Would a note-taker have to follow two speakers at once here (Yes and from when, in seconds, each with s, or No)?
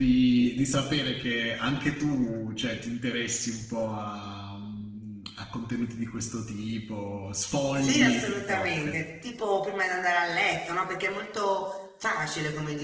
Yes, from 7.8 s